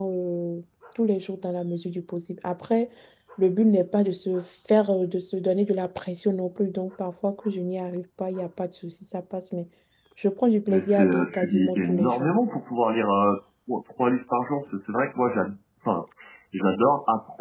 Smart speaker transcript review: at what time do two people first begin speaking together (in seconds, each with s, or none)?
10.7 s